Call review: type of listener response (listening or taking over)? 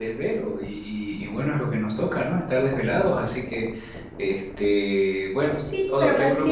taking over